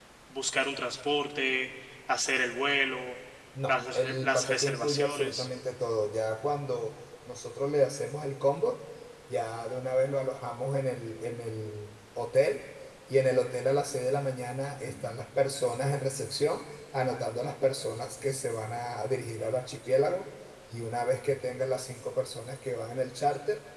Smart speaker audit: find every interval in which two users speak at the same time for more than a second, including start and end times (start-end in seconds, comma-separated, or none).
3.7-5.5